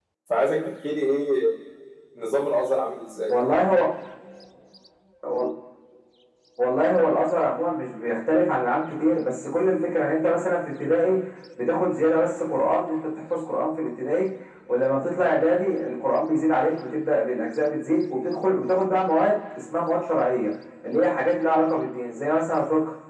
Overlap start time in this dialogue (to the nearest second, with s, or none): none